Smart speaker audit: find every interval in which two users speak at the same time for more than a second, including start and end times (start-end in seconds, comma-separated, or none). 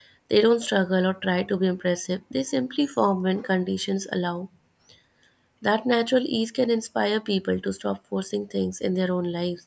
none